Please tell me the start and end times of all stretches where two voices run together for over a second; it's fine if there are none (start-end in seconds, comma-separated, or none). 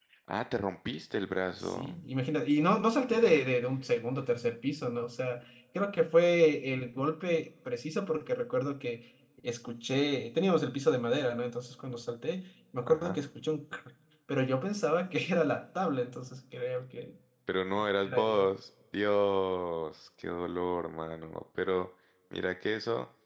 none